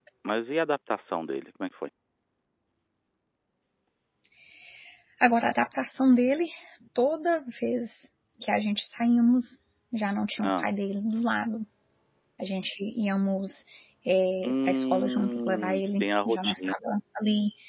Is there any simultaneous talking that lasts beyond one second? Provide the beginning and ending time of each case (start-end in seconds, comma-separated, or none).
14.4-16.7